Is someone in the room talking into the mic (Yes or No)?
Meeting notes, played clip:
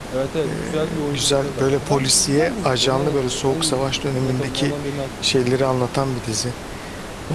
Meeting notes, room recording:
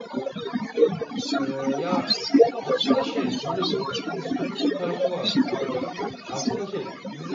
Yes